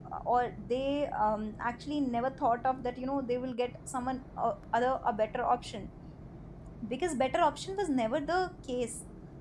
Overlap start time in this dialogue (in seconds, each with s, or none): none